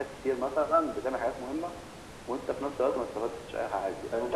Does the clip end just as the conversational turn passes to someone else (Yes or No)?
Yes